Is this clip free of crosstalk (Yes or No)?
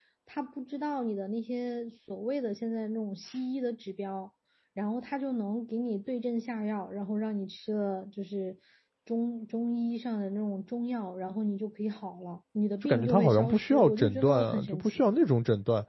No